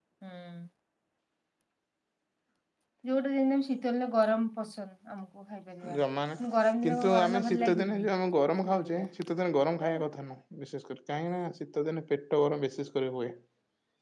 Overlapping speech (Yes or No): Yes